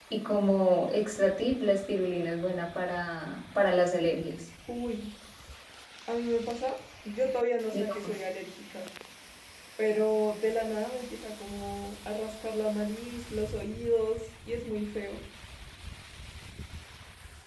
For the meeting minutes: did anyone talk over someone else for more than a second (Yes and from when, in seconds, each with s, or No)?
No